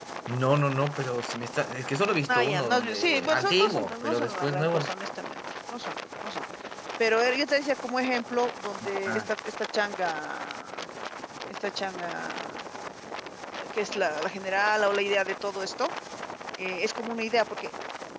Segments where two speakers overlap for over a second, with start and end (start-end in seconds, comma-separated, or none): 2.3-4.9